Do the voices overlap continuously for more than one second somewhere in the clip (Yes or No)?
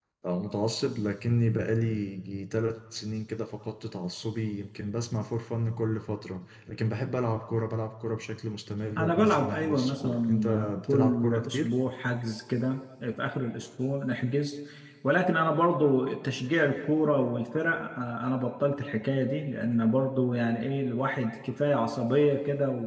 Yes